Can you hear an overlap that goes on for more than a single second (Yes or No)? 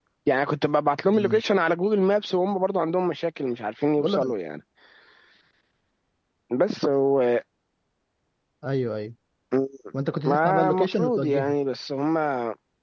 Yes